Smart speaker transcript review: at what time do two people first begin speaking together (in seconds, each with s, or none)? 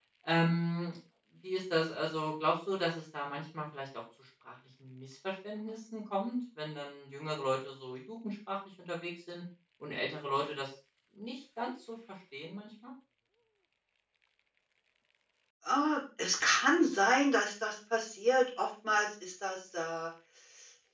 none